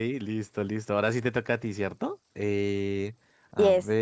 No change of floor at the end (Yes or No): Yes